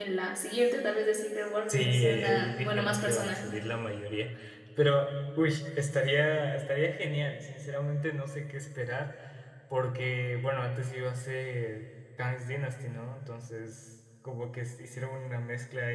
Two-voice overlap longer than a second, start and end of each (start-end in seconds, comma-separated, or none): 1.7-3.4